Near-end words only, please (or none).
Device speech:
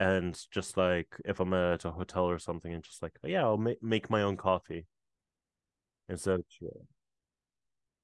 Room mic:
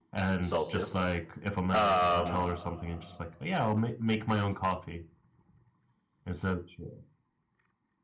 Celsius. Um,